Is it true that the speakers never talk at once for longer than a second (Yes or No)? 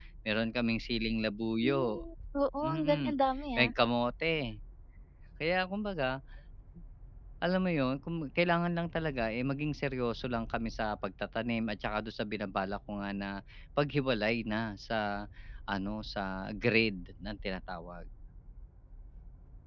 Yes